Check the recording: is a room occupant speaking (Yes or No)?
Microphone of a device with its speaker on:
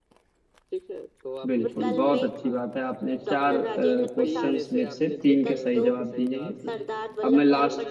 Yes